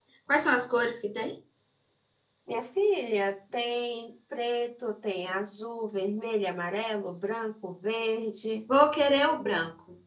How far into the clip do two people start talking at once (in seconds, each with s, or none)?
none